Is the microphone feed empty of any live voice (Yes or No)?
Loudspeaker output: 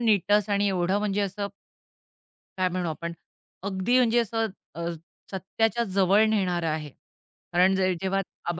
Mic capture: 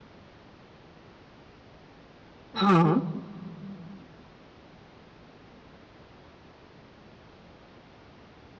No